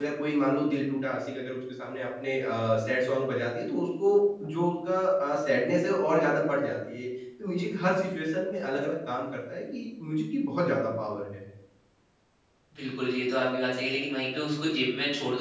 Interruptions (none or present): none